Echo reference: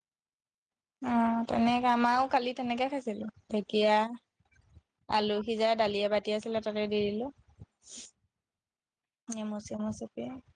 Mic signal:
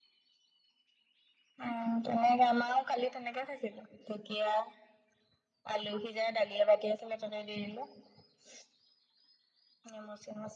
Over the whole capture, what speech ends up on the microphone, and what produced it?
echo only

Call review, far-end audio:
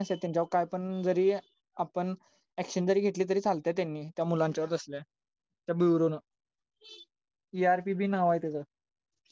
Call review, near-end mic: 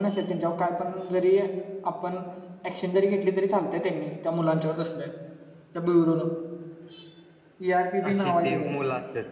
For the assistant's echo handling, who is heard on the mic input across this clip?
both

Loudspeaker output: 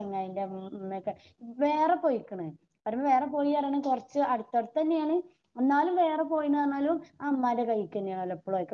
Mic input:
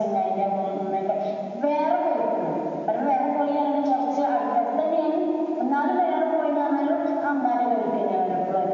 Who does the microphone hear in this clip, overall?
echo only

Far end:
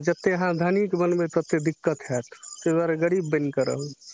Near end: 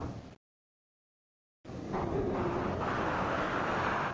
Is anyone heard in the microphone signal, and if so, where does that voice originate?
neither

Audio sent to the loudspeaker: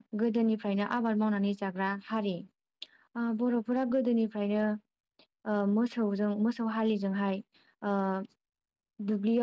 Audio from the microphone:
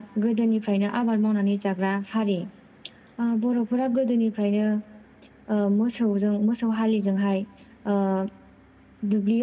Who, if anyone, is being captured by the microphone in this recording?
echo only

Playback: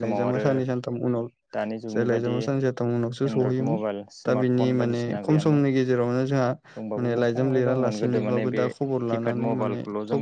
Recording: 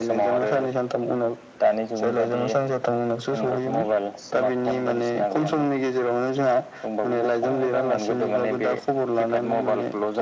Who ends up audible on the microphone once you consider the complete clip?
echo only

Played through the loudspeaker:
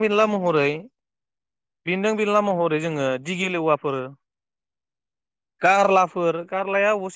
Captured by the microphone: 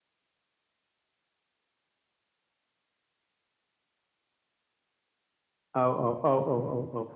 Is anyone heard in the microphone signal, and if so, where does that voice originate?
user only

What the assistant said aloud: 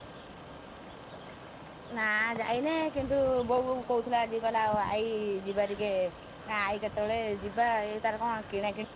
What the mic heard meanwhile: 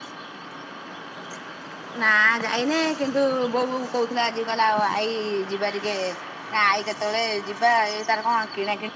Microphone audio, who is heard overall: echo only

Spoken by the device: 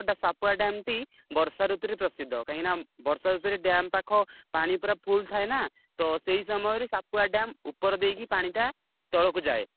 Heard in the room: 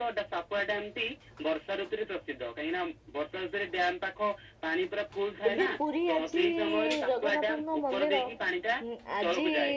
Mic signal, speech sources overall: both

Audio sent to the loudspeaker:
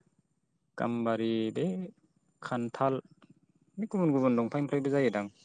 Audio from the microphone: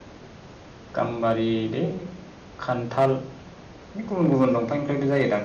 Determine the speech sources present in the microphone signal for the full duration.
echo only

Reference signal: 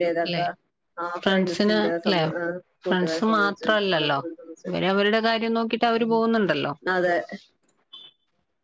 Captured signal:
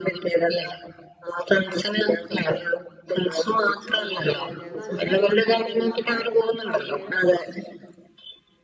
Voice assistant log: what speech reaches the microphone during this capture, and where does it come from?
both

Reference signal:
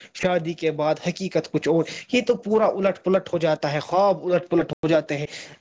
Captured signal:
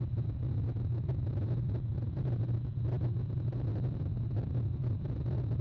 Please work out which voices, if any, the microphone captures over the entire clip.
neither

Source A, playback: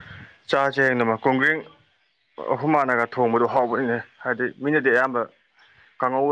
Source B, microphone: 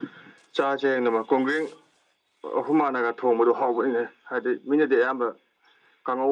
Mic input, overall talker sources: echo only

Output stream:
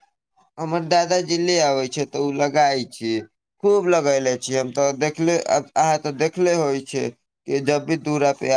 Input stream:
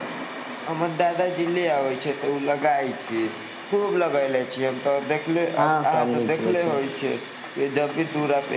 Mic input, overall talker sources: both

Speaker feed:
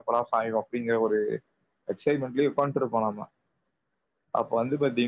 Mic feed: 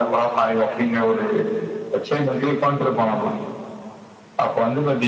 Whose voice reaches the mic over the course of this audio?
echo only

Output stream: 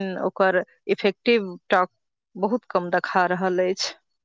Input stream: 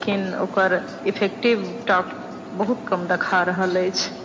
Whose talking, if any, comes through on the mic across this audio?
echo only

